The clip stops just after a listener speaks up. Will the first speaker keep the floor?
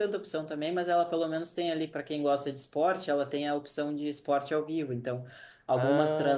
Yes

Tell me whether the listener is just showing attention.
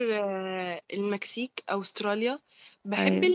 Yes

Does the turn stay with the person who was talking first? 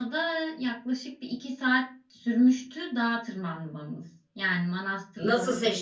No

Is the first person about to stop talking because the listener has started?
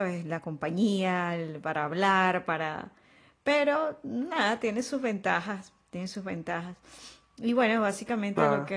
No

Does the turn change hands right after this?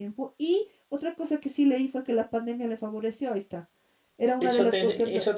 Yes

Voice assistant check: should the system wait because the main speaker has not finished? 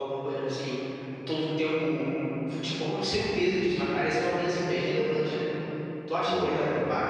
Yes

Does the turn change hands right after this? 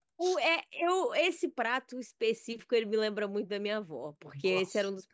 No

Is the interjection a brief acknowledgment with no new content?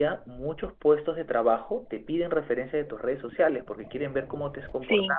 Yes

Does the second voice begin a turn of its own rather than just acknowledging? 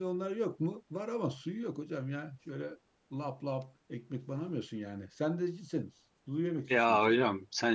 Yes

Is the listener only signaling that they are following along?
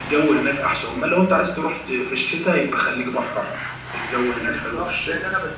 No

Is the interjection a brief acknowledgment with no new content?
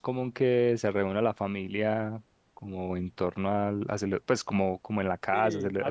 No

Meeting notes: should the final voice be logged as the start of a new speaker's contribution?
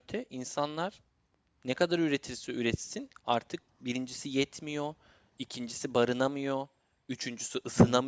No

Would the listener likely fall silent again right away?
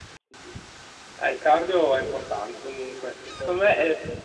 Yes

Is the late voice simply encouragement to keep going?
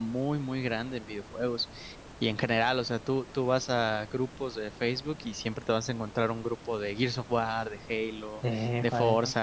Yes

